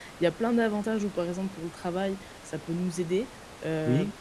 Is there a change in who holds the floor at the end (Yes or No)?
No